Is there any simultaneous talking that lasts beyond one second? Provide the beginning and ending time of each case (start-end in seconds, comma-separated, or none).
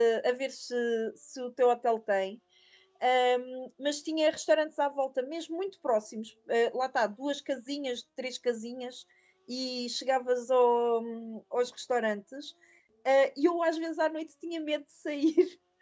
none